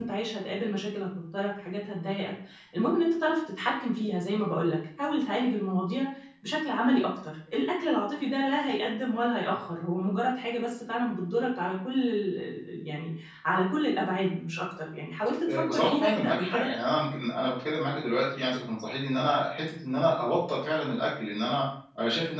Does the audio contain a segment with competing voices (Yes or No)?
Yes